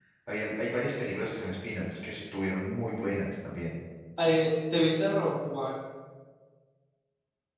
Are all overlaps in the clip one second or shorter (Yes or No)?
Yes